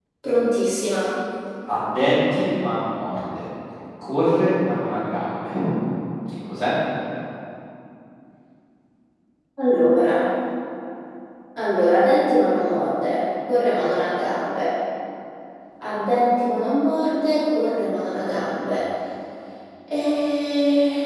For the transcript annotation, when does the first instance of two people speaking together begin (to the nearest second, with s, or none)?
none